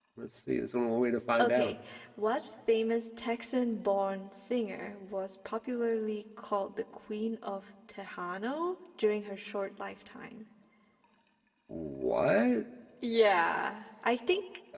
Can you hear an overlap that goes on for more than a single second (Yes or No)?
No